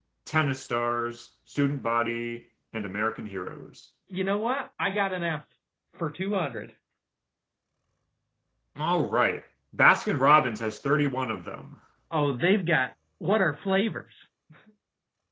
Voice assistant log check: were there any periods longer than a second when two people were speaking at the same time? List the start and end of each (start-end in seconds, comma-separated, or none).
none